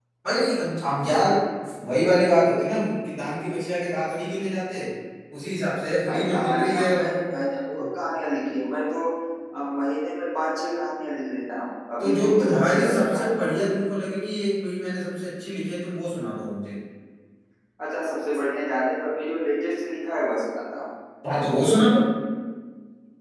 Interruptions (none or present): present